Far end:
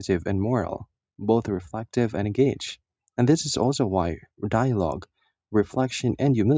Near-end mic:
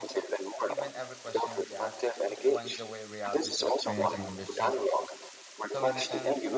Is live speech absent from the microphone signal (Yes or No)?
No